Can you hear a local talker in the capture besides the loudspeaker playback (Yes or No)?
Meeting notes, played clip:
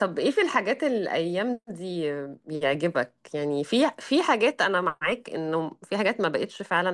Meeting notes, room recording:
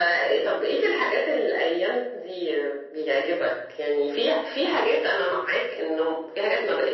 No